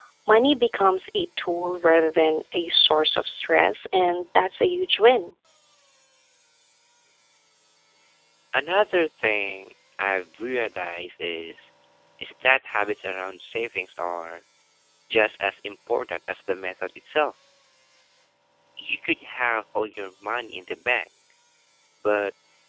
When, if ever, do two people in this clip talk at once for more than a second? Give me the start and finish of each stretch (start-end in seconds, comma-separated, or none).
none